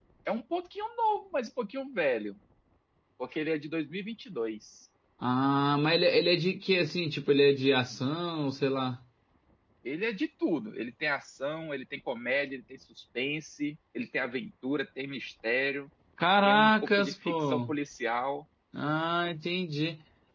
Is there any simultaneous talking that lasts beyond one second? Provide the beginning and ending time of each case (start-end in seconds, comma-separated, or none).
16.4-17.7